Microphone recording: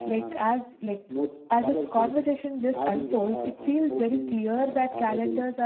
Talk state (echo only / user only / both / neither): both